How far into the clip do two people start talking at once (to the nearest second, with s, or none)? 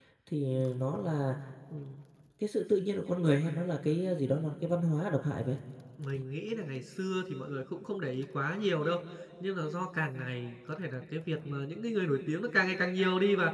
none